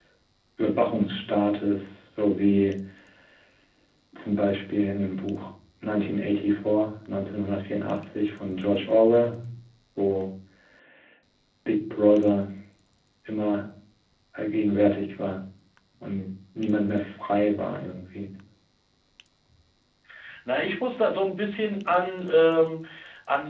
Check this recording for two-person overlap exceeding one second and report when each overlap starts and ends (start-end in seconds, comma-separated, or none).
none